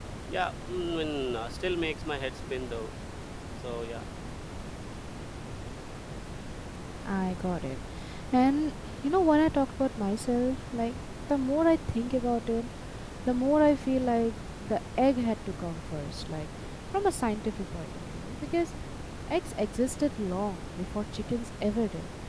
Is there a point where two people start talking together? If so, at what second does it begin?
none

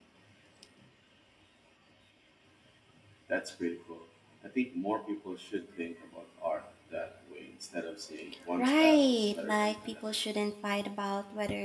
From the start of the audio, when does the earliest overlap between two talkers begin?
8.6 s

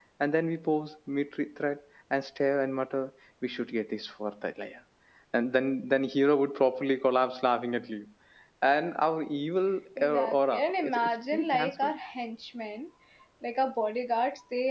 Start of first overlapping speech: 10.0 s

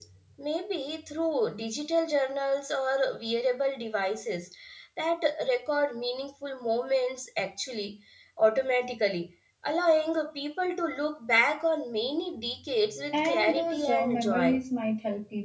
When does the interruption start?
13.1 s

